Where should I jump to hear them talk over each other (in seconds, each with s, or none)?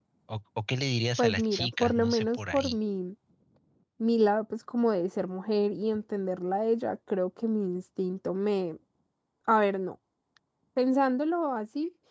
1.2 s